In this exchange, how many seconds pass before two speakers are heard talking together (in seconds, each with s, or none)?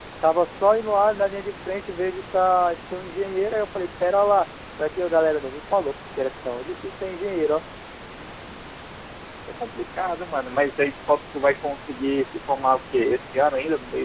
none